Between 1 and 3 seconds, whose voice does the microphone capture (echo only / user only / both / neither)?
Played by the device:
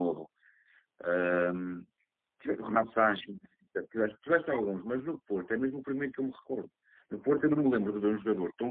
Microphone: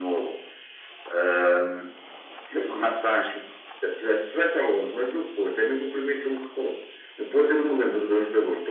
echo only